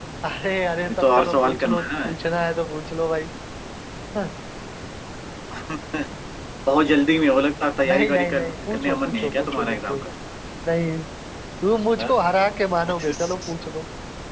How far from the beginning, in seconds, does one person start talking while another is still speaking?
1 s

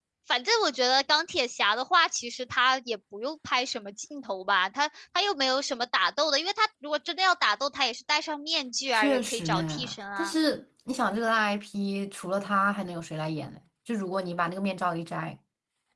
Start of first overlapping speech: 9 s

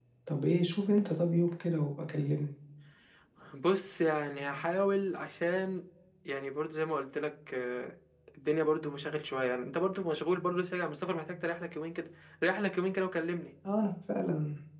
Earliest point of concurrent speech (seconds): none

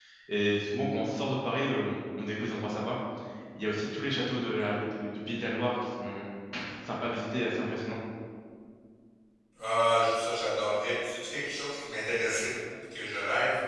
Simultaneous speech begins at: none

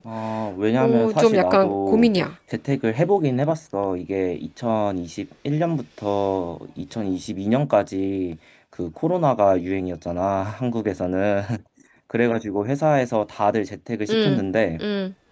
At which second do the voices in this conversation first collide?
1 s

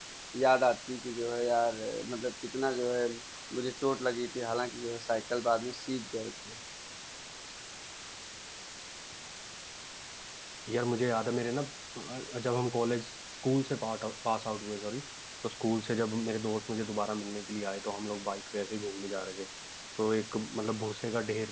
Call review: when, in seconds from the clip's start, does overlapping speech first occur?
none

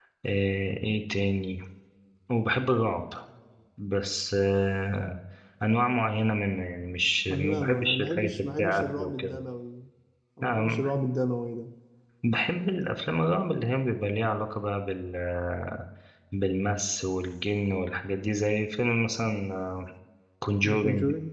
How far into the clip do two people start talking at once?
7 s

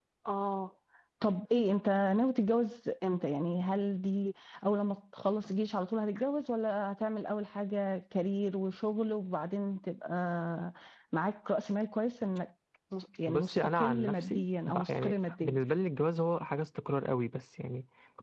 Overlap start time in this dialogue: 13 s

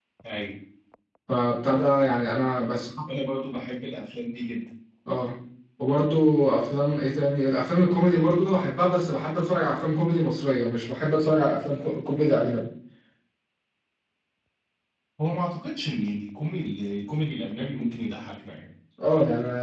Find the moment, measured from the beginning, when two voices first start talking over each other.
none

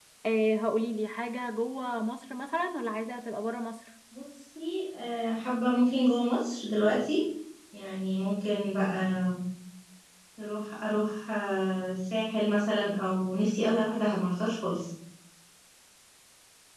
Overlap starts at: none

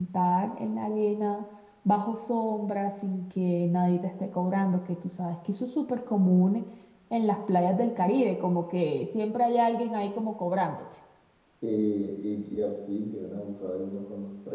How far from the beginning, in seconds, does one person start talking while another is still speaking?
none

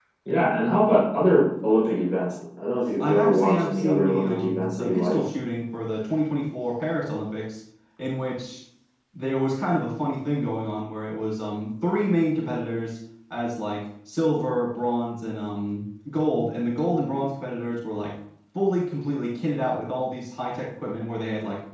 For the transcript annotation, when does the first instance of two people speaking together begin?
3 s

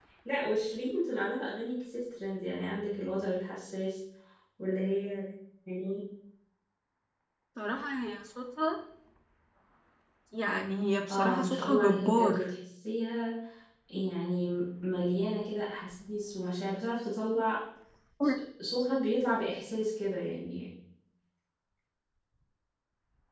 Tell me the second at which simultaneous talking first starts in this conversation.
11 s

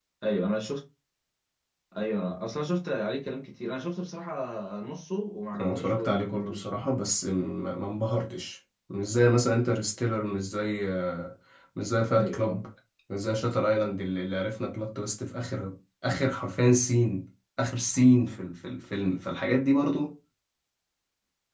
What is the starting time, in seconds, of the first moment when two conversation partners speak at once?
6 s

